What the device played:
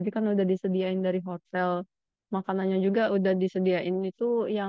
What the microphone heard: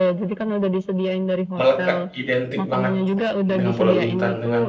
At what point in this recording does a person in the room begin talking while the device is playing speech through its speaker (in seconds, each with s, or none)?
1.6 s